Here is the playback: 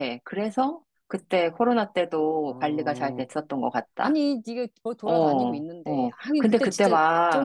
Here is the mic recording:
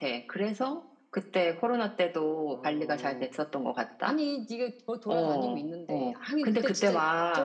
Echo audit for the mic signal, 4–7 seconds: echo only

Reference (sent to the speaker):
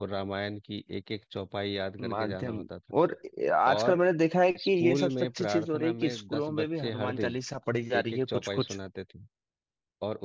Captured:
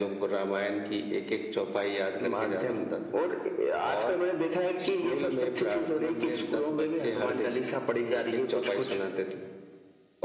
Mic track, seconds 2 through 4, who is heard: echo only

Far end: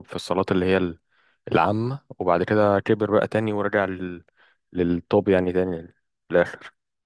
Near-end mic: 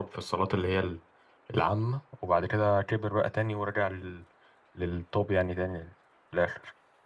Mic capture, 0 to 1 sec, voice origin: echo only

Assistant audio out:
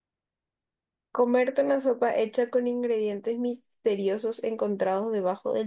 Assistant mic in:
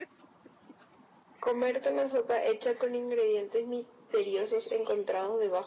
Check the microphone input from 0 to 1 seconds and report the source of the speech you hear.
neither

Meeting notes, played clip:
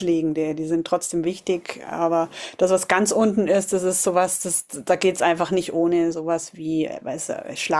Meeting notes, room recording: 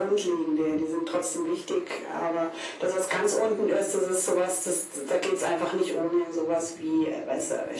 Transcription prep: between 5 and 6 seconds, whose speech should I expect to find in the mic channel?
echo only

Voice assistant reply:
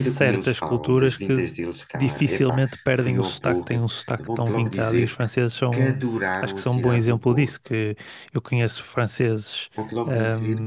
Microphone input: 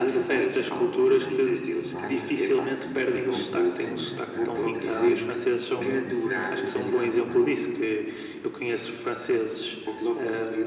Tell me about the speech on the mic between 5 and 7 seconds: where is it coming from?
both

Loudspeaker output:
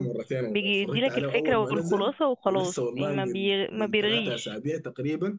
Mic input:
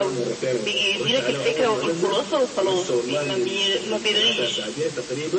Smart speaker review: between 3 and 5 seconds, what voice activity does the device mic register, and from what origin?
echo only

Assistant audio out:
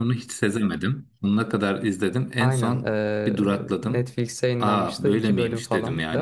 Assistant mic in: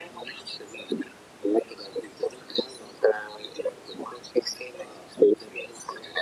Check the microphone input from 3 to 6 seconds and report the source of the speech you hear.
echo only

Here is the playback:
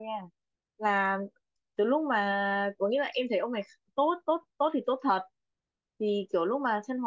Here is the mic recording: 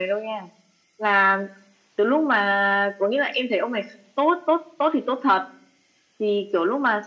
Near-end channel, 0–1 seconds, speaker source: echo only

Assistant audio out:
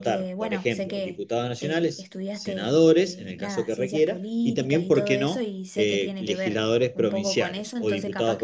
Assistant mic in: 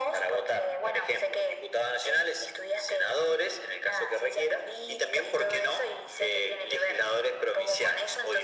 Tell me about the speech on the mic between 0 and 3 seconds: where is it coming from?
echo only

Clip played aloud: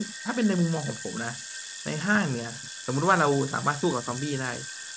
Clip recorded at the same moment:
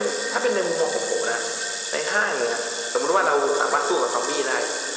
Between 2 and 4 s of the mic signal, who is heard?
echo only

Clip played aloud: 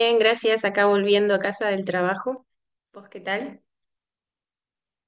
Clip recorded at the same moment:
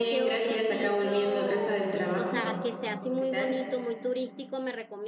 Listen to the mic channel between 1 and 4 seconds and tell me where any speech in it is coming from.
both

